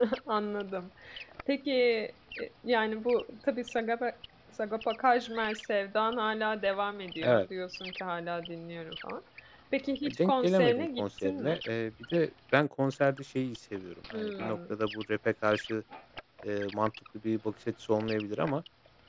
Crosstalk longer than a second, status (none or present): present